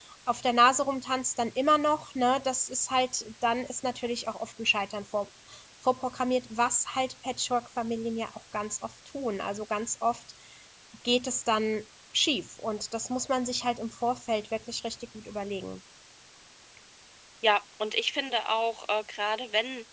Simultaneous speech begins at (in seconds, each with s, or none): none